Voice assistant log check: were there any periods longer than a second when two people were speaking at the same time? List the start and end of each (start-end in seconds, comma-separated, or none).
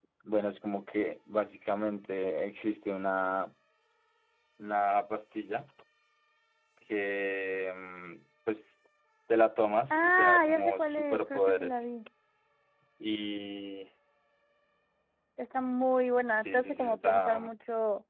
9.9-11.9, 16.2-17.5